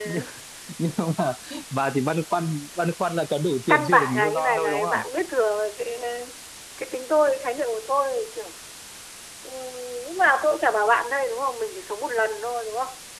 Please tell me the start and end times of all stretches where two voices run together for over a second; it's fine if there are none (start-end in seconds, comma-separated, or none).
3.7-5.0